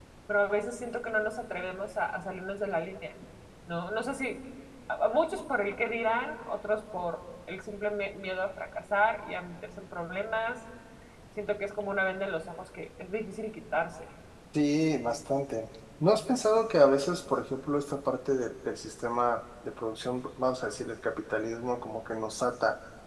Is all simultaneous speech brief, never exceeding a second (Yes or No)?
Yes